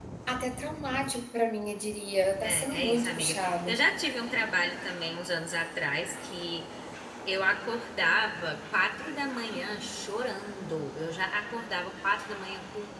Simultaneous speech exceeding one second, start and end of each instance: 2.4-3.8

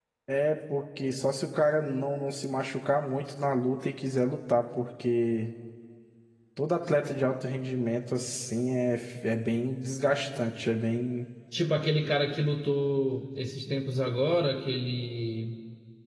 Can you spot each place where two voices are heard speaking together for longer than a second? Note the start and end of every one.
none

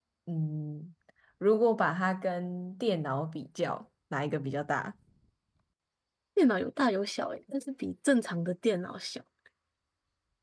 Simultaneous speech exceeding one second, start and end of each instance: none

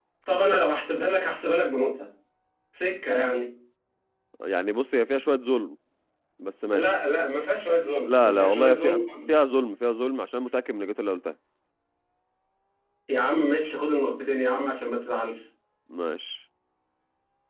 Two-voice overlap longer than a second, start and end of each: 8.1-9.3

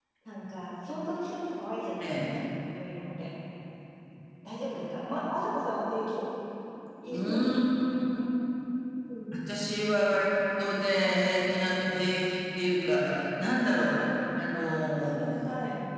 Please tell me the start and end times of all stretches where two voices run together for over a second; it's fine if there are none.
none

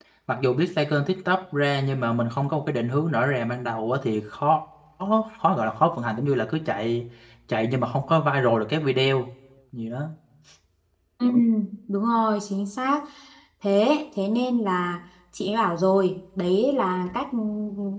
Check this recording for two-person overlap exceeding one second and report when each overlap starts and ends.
none

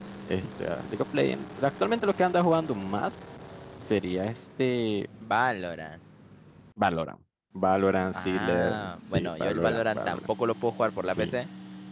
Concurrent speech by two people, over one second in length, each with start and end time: 8.1-10.2

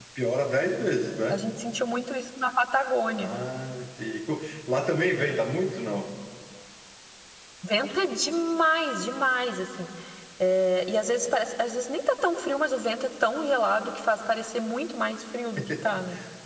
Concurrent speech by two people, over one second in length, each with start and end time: none

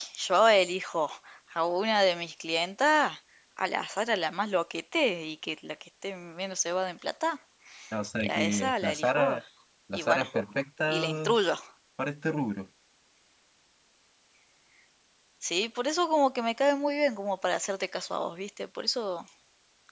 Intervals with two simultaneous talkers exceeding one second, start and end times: 8.2-9.4

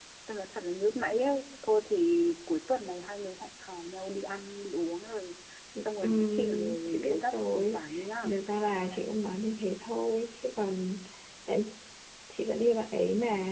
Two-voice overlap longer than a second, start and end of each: 6.0-7.8

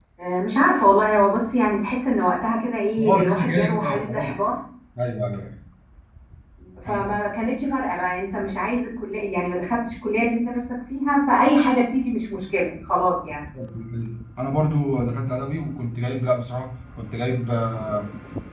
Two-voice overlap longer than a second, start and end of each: 3.0-4.3

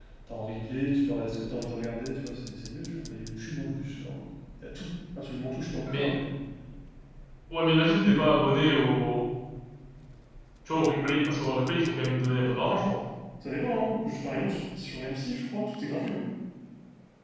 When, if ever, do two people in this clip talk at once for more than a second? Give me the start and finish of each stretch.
none

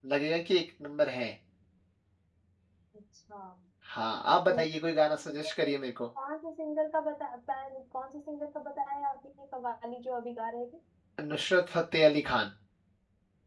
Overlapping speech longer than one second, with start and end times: none

